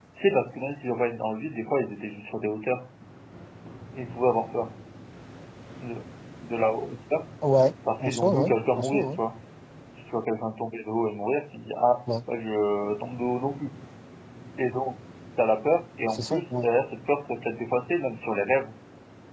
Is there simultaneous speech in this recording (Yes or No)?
Yes